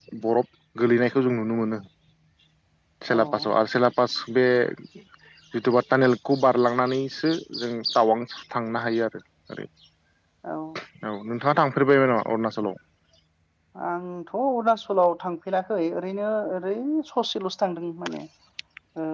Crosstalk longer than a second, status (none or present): none